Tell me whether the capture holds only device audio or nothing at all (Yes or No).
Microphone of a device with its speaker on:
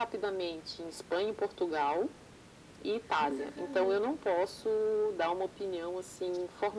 No